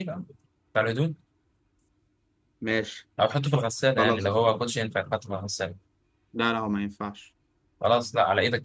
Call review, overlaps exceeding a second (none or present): none